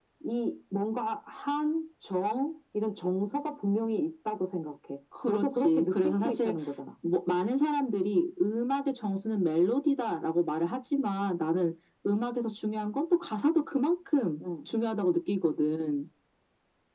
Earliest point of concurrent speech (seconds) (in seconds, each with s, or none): 5.1 s